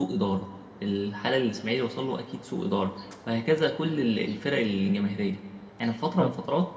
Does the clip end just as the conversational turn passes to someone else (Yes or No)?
No